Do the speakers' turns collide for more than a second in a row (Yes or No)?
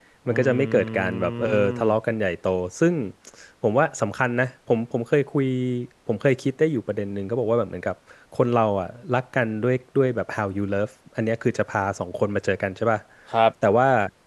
Yes